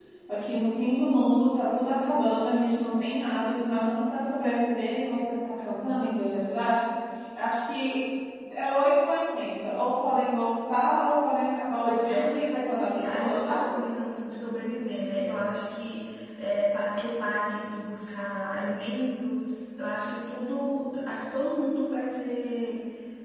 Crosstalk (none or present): present